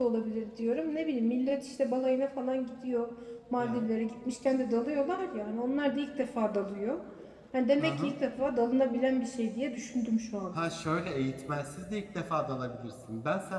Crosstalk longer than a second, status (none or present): none